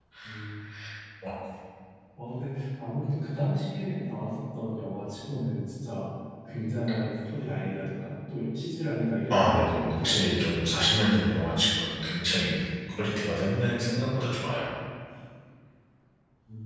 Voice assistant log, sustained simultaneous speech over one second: present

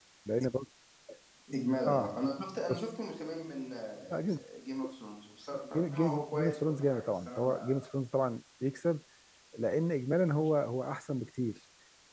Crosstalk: present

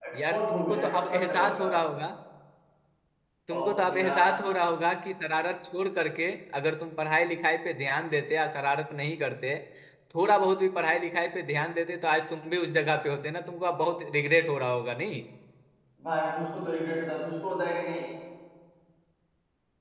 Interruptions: present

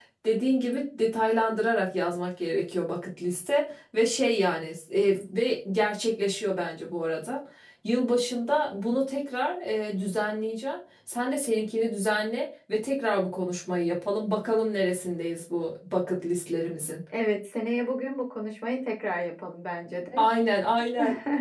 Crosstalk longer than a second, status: none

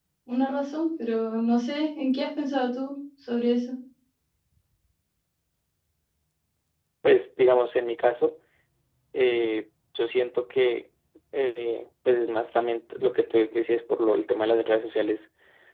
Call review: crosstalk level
none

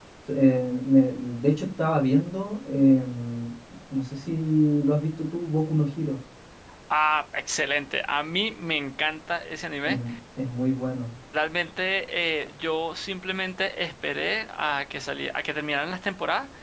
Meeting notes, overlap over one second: none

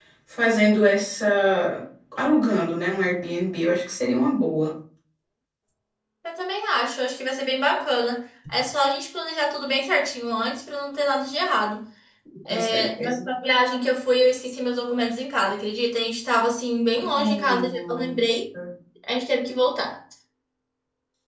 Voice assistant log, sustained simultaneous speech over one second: present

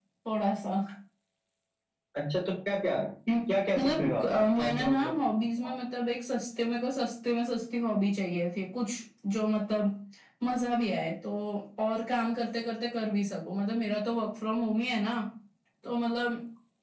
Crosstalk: present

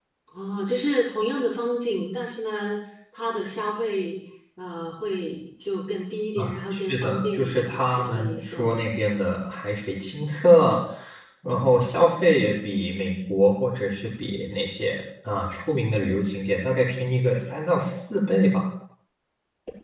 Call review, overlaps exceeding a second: present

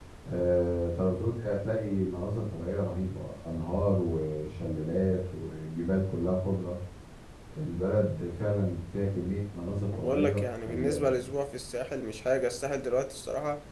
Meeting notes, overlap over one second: present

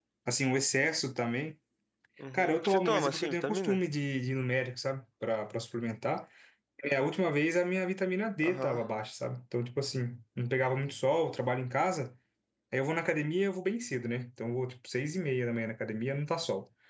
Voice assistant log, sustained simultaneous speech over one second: present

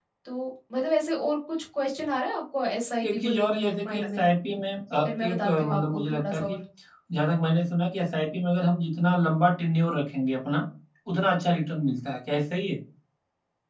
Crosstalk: present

